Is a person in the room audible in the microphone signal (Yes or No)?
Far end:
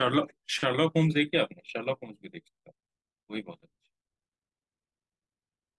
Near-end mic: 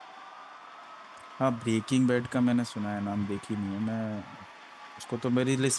Yes